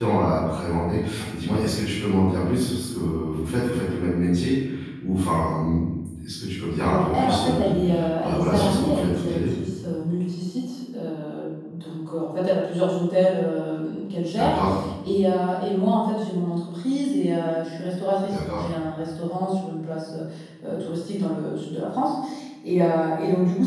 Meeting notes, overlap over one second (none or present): present